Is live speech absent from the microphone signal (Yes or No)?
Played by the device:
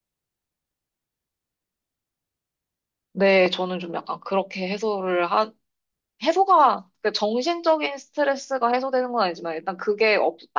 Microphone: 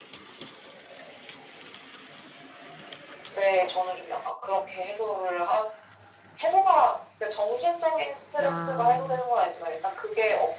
No